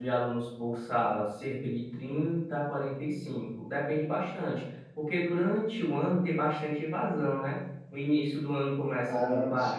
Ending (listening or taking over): listening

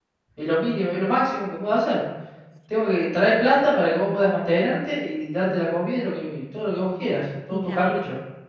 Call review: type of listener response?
taking over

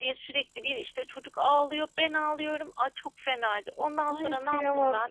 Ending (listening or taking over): taking over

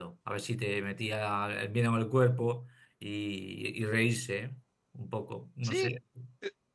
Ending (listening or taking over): taking over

